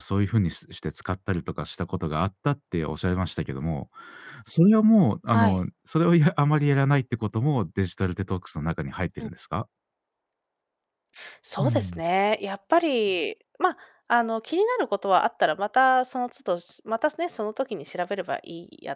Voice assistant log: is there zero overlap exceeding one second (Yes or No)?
Yes